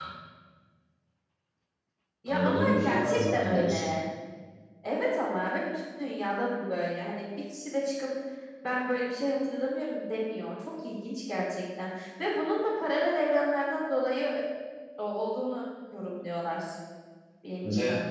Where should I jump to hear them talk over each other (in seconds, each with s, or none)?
2.3 s